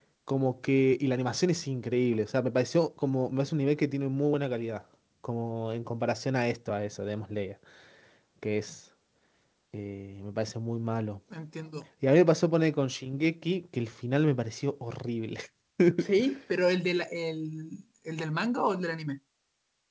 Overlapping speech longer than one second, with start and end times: none

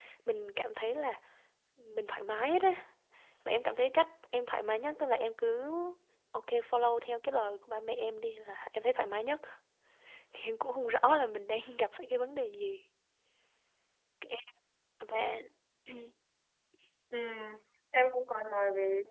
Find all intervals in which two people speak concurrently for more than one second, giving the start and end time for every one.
none

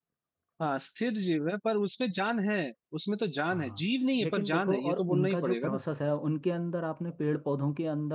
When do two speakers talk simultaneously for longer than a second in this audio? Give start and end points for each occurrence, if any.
4.2-5.8

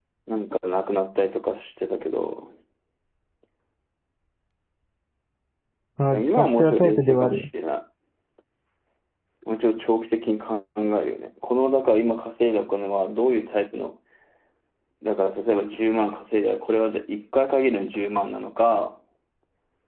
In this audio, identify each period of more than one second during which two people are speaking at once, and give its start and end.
6.1-7.4

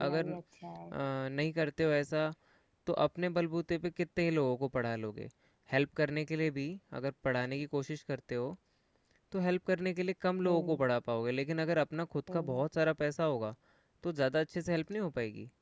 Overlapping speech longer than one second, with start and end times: none

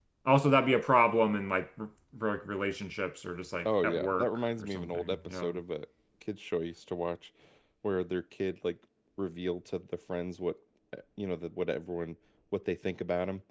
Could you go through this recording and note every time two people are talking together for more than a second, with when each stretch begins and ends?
3.6-5.5

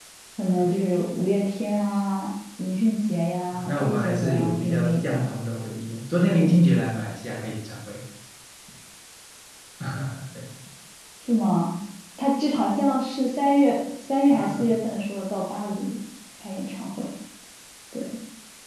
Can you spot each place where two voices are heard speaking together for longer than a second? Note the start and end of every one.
3.5-5.2

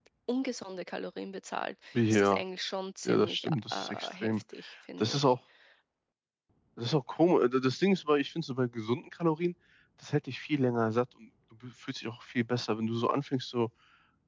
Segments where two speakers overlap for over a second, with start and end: 3.1-4.3

